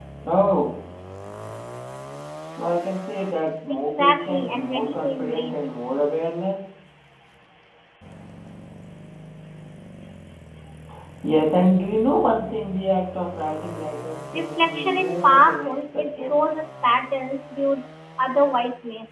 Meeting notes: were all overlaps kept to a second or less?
No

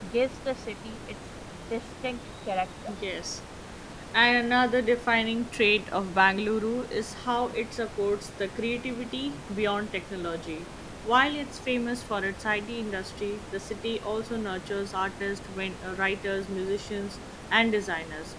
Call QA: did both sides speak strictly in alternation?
Yes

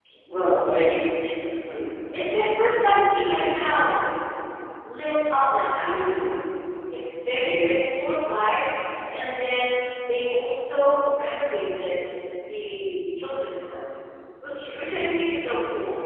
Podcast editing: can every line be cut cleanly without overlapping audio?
Yes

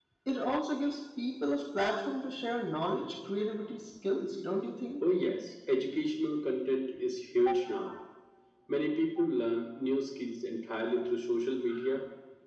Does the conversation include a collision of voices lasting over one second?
No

